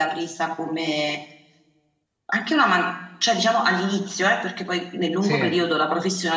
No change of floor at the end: Yes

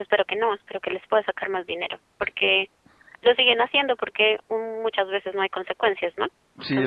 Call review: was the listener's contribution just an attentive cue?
No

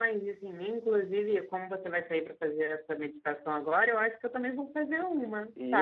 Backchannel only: No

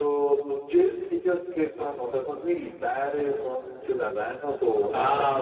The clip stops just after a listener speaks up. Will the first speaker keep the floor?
No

